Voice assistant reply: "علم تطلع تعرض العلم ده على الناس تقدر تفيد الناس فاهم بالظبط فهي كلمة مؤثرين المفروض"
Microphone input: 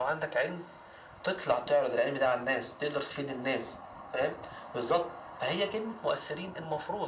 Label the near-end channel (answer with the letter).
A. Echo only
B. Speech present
A